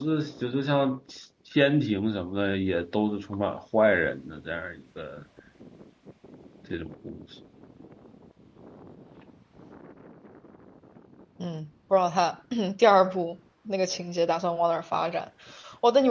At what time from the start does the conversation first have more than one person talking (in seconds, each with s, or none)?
none